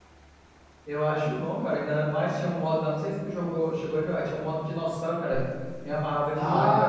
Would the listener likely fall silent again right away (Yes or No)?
No